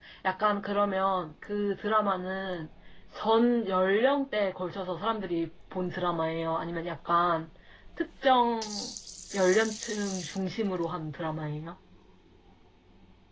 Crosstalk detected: No

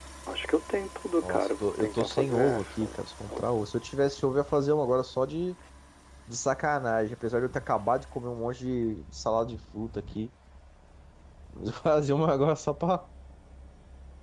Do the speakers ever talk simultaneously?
Yes, from 1.2 s

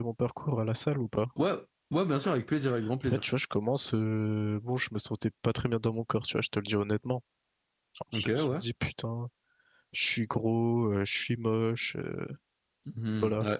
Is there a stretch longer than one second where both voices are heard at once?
No

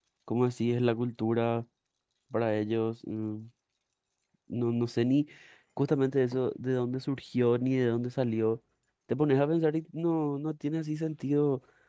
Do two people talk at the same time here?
No

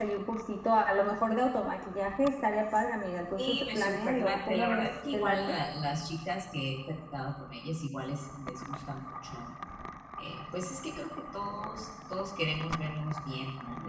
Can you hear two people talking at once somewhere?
Yes, from 3.4 s

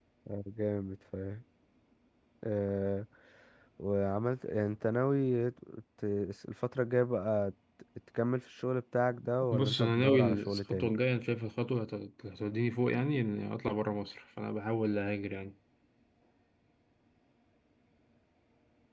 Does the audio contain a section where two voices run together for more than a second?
Yes, from 9.5 s

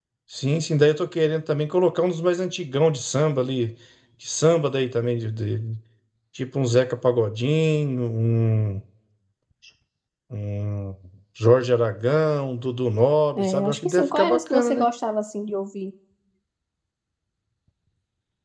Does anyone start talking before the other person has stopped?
Yes, from 13.4 s

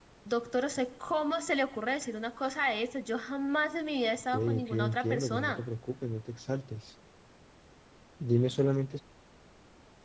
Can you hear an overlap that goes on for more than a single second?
Yes, from 4.3 s

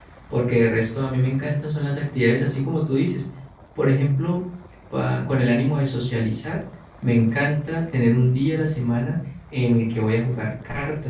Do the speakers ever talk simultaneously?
No

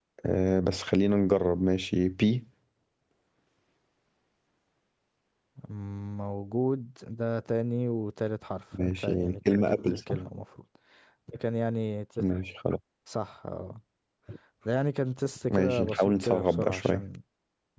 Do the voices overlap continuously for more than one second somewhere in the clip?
Yes, from 8.8 s

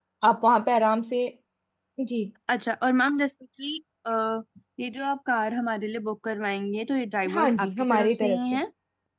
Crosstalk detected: Yes, from 7.2 s

